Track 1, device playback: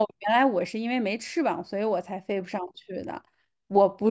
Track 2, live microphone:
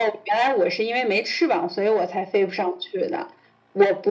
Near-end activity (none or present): none